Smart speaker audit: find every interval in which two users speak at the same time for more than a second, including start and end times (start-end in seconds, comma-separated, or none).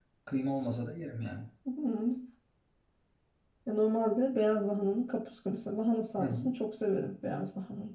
none